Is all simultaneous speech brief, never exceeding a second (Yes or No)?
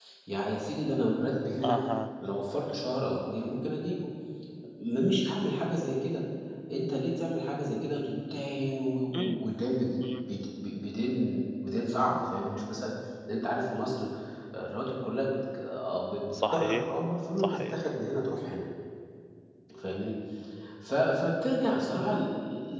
Yes